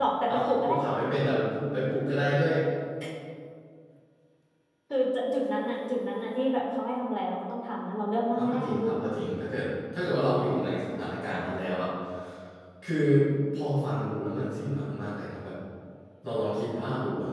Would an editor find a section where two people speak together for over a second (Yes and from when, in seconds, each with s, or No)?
No